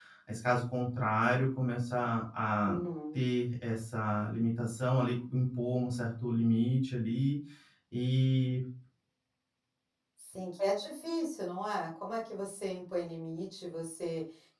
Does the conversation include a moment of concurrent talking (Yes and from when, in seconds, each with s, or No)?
No